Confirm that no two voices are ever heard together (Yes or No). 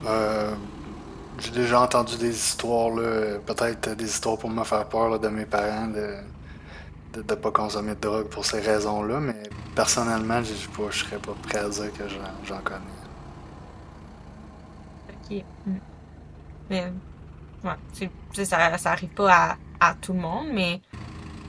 Yes